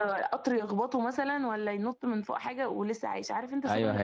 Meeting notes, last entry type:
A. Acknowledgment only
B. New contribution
B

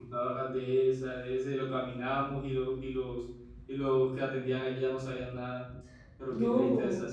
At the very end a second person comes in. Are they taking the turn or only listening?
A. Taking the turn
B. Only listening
A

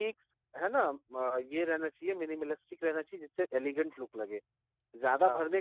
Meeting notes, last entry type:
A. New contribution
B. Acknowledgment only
B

